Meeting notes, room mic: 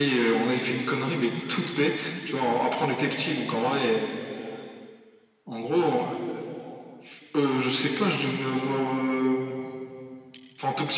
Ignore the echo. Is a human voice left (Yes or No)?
No